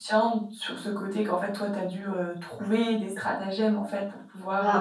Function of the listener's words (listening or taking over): taking over